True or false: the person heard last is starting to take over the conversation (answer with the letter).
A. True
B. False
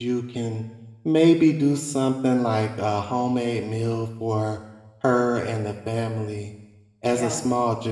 B